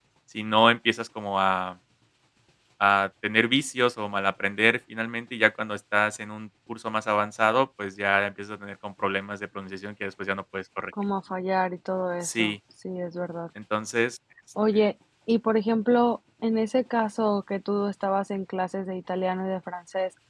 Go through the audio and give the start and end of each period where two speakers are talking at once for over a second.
none

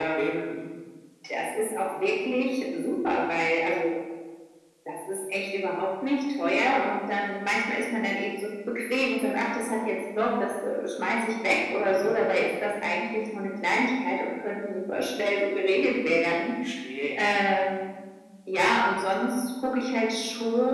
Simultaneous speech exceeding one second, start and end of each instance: none

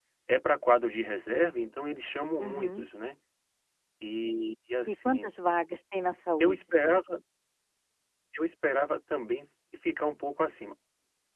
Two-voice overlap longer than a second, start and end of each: none

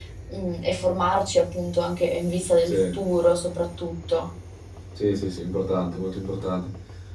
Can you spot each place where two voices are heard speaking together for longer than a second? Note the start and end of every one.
none

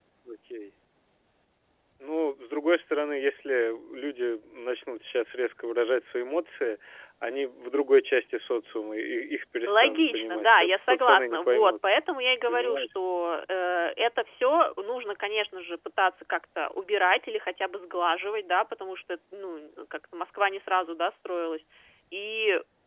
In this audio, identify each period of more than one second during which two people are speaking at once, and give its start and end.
9.7-11.7

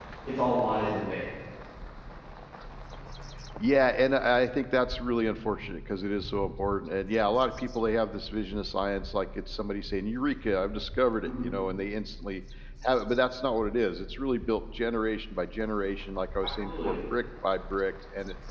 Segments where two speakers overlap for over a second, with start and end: none

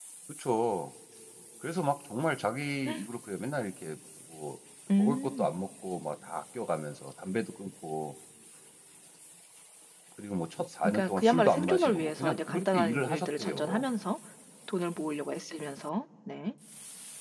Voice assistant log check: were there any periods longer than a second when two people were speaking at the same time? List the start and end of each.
10.8-13.8

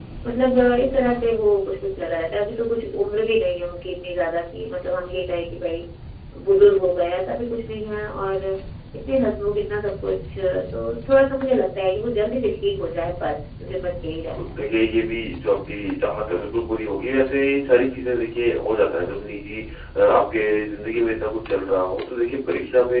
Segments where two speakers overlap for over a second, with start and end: none

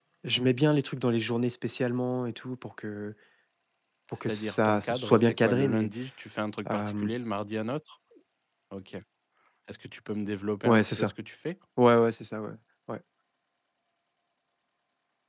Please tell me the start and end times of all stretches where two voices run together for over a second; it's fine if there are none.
4.3-5.9

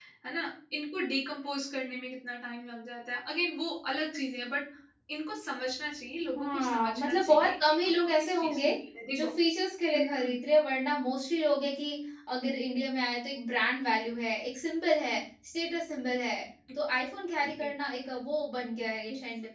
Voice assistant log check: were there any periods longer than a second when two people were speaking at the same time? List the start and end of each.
6.4-8.7

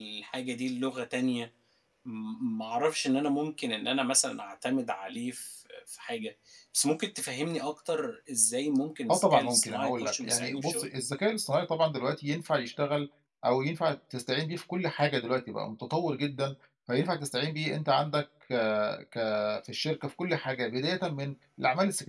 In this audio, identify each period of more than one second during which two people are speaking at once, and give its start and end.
9.1-10.9

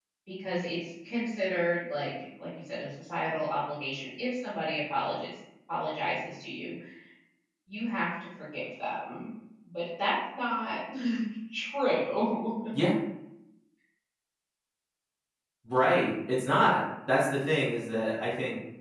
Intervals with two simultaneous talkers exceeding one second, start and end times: none

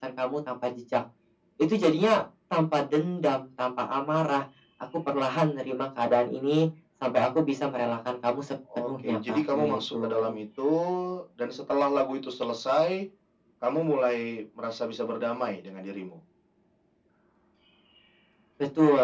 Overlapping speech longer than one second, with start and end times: 8.8-10.3

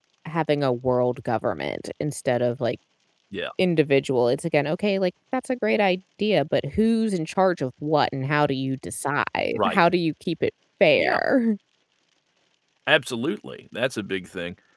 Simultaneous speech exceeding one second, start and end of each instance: none

